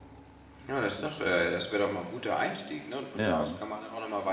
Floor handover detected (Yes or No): No